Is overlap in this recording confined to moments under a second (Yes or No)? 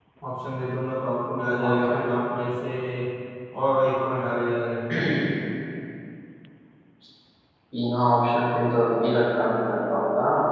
Yes